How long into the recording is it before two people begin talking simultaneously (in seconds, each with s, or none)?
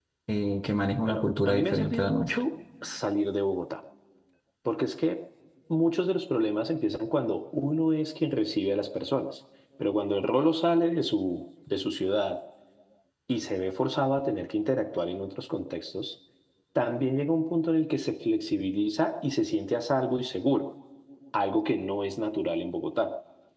1.0 s